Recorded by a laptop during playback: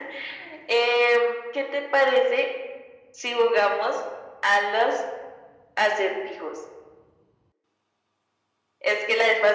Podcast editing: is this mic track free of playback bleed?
No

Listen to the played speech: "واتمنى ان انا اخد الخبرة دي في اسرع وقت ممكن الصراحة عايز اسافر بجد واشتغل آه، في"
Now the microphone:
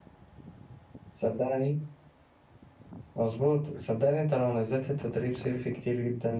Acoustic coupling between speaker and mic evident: No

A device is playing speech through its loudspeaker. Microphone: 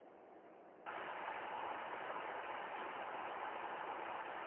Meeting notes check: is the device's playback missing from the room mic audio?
Yes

